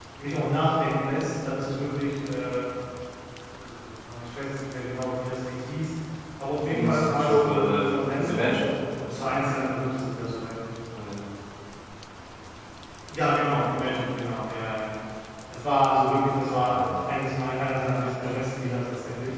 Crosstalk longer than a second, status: present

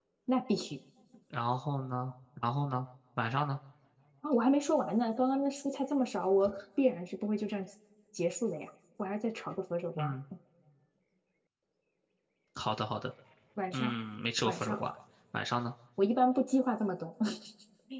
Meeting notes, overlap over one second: none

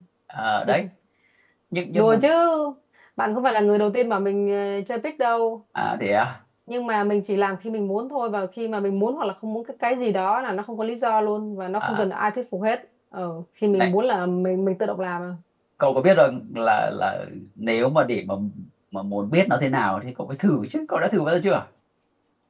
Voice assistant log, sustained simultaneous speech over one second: none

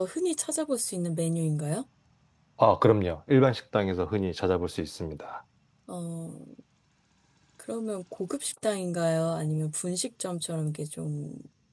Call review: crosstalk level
none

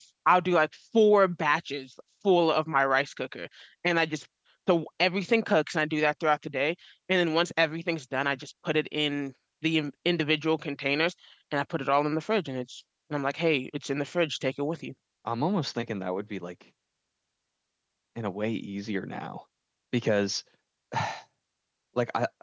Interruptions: none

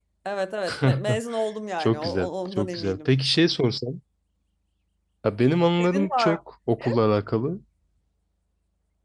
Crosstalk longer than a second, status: present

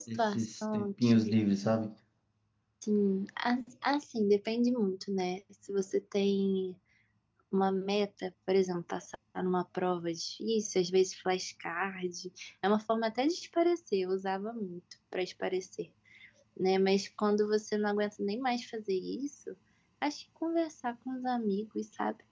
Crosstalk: present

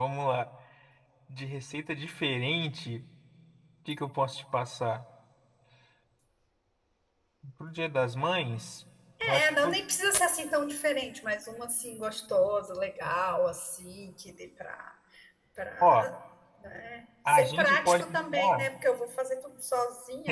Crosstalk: present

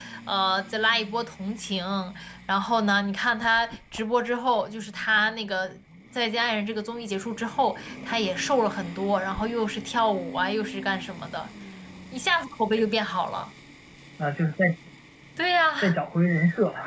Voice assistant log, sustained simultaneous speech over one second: none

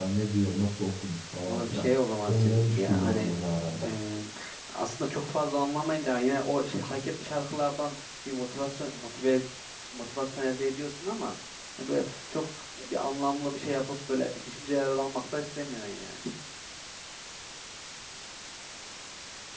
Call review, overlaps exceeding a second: present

